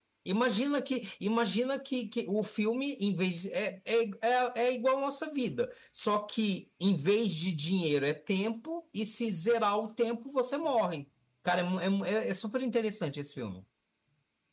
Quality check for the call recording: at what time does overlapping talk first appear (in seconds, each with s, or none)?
none